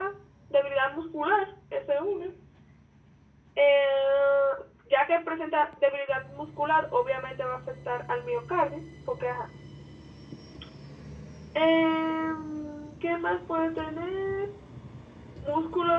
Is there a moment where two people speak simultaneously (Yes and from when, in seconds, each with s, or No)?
No